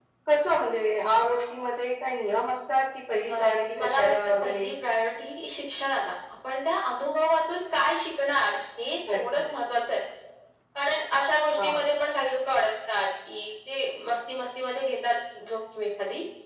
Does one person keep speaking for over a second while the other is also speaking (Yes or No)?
Yes